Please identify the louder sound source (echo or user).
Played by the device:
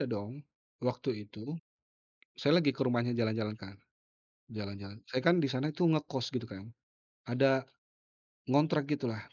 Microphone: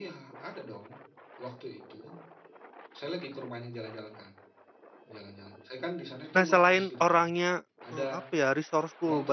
user